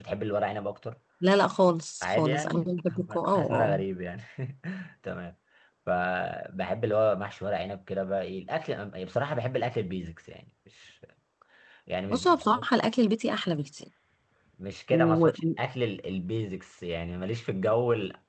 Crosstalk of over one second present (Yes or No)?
Yes